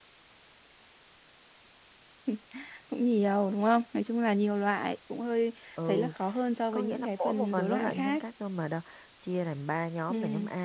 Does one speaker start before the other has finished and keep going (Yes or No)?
Yes